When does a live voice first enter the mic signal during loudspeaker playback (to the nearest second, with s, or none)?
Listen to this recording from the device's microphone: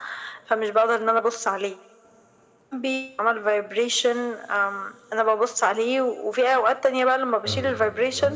7 s